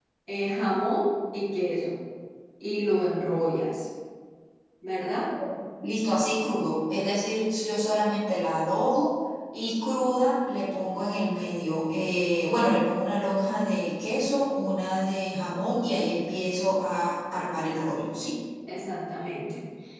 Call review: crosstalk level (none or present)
none